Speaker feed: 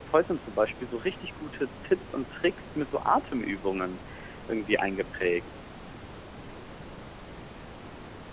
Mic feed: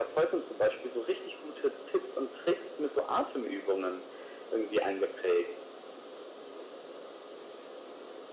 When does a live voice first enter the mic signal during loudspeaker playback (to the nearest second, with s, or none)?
none